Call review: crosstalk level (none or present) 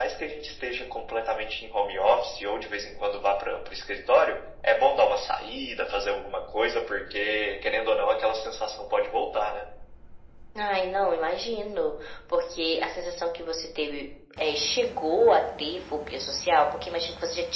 none